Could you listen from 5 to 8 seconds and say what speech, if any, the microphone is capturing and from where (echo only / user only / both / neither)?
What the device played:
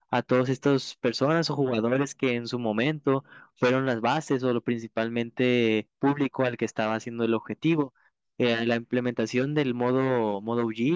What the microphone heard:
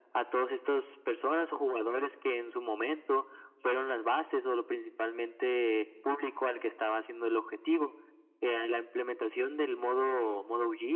echo only